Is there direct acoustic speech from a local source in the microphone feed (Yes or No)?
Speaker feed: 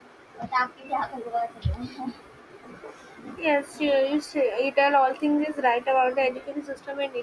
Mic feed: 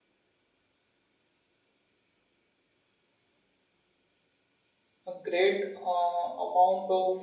Yes